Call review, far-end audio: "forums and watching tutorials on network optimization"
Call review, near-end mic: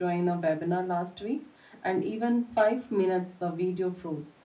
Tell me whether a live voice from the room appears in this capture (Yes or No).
Yes